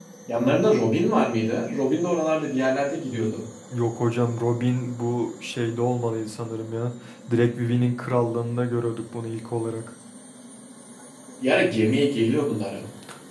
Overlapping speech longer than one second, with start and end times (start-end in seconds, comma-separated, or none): none